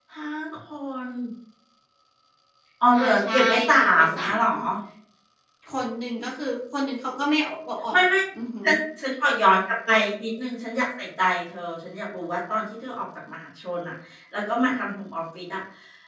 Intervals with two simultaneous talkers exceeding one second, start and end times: 3.0-4.5

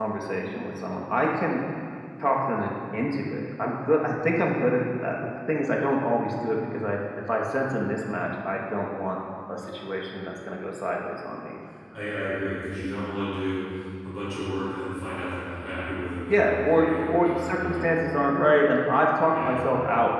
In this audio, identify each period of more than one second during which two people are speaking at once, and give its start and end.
16.3-17.8

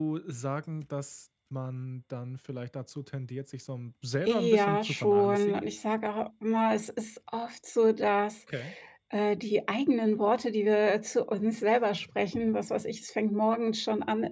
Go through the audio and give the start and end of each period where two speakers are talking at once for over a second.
4.3-5.6

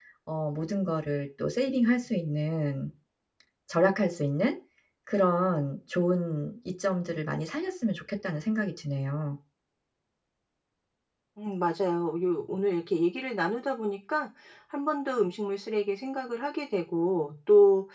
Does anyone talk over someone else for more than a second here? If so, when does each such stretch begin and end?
none

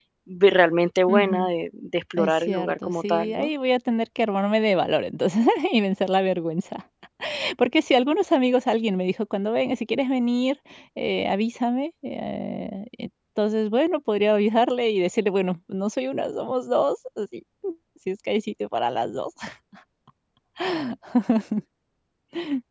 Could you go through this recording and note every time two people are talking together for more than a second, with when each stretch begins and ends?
2.2-3.5

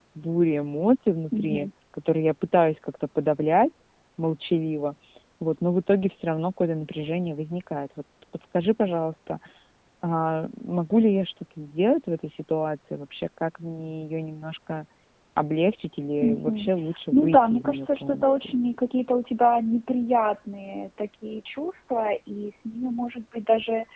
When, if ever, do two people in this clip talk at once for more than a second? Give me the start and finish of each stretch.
17.1-18.5

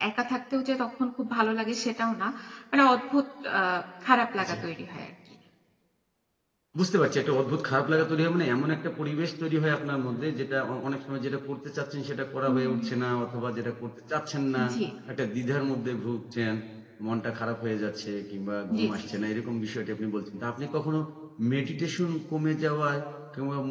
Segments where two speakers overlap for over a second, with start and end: none

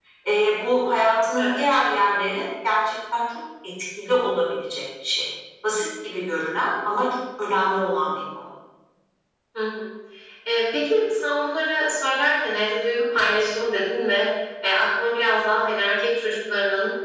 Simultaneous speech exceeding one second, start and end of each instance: none

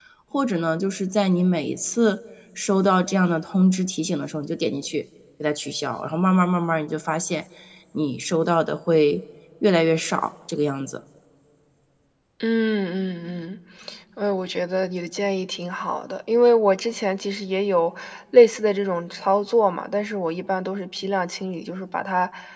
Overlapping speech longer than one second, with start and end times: none

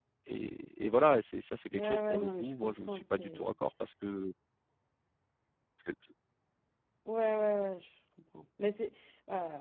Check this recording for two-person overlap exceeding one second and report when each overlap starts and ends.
1.7-3.5

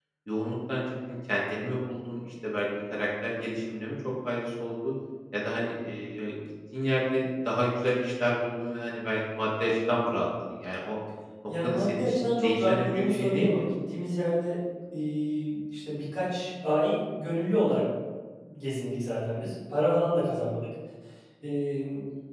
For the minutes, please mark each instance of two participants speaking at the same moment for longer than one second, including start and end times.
11.6-13.6

